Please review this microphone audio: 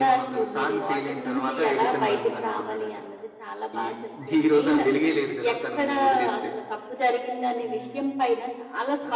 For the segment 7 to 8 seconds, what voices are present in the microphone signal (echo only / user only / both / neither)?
echo only